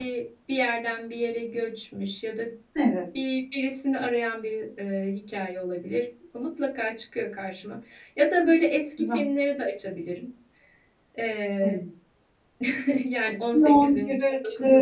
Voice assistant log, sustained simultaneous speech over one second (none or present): present